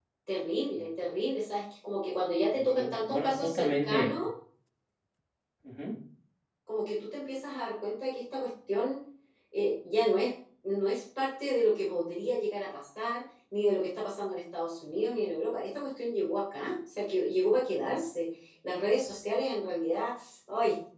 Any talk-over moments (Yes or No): Yes